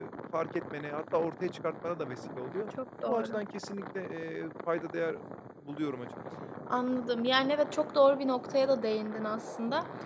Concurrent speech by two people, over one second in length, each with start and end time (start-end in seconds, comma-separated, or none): none